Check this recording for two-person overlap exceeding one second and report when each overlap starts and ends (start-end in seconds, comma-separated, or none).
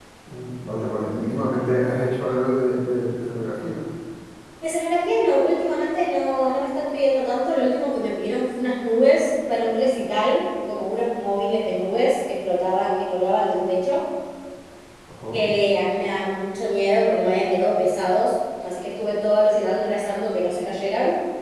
none